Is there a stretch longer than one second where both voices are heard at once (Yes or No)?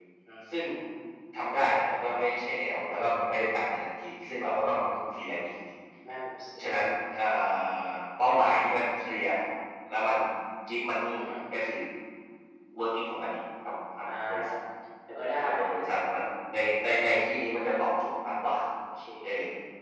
No